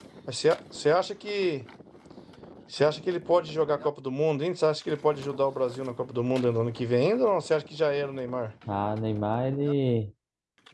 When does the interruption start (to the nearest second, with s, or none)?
none